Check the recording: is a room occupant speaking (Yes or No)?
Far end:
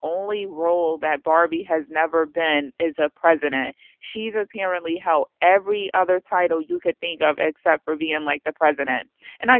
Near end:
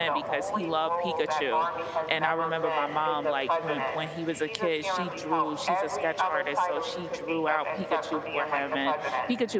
Yes